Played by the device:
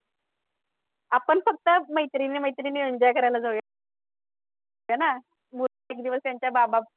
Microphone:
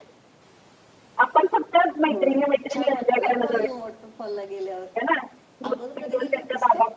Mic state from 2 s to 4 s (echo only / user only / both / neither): both